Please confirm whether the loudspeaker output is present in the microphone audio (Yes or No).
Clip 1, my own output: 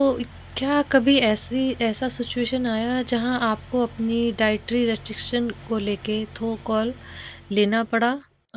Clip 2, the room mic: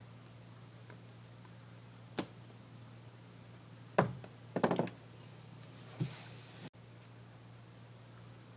No